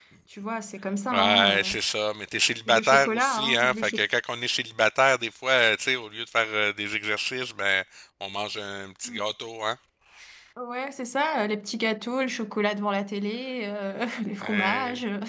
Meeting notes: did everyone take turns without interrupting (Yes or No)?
No